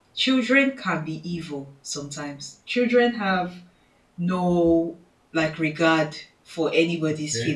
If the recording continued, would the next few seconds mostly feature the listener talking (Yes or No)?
No